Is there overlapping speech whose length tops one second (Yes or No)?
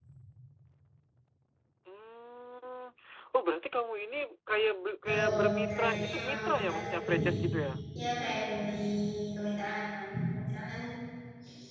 Yes